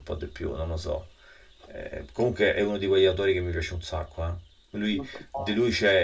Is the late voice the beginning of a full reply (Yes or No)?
No